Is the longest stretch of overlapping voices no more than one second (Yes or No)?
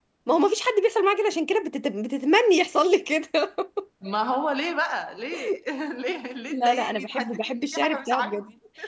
No